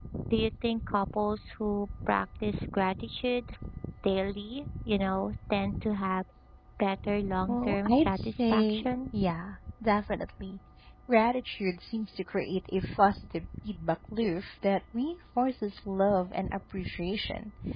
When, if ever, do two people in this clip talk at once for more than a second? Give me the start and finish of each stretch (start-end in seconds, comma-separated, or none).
7.5-8.9